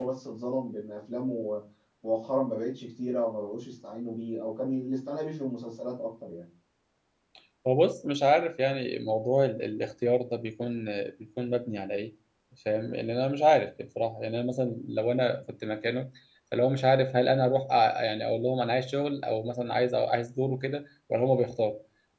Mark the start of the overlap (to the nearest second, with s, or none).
none